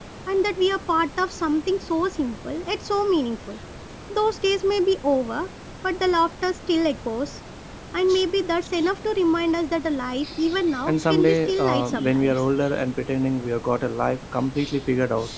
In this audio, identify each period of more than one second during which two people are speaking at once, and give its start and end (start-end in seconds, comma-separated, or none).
10.9-12.3